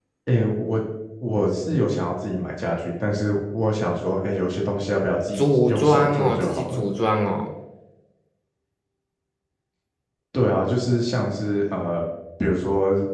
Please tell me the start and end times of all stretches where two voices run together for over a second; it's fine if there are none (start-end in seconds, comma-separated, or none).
5.3-6.8